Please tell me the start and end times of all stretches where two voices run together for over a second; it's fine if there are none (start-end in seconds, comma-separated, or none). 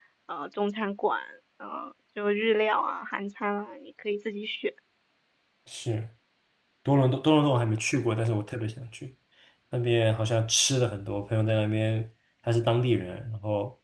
none